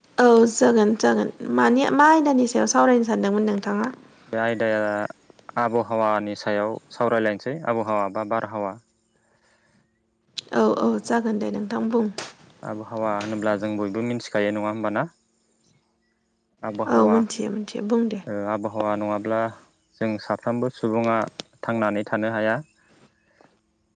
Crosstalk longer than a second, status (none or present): none